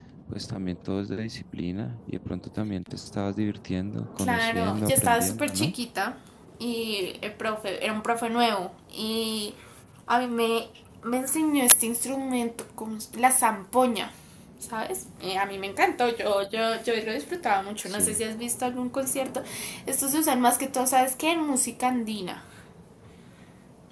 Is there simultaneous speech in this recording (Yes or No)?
Yes